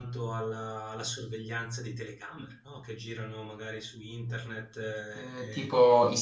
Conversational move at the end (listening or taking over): taking over